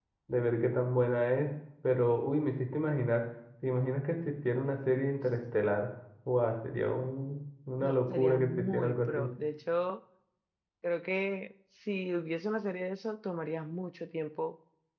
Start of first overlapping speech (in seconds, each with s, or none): 7.8 s